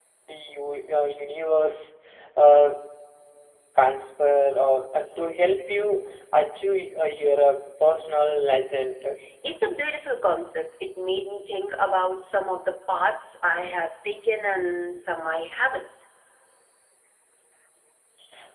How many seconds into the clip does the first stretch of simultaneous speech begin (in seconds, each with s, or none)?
none